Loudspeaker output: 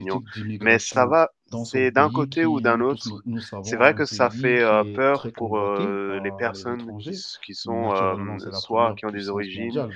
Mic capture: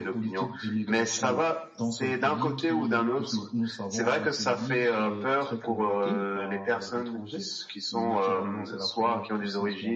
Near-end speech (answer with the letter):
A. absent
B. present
A